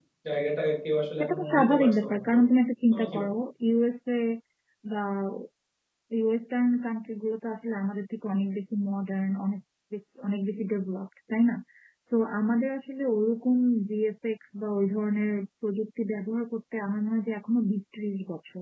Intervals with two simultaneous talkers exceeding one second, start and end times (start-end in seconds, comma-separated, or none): 1.2-2.4